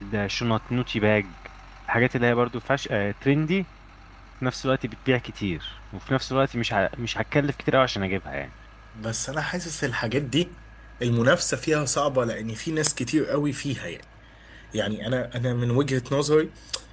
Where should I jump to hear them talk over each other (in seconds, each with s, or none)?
none